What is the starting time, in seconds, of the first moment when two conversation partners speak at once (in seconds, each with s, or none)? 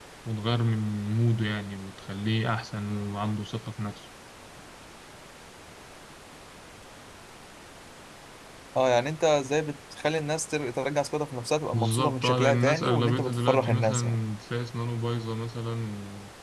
11.7 s